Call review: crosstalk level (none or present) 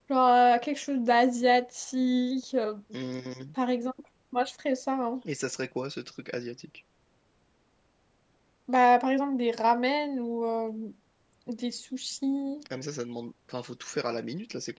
none